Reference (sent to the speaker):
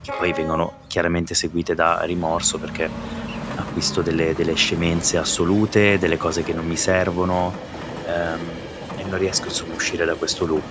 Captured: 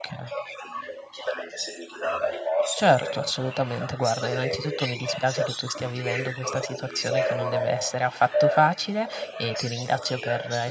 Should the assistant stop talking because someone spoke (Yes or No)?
Yes